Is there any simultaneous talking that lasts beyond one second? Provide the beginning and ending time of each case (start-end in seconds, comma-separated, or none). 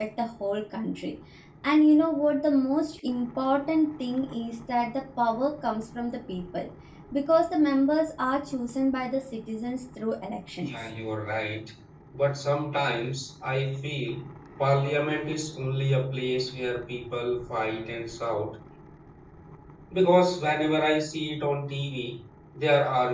none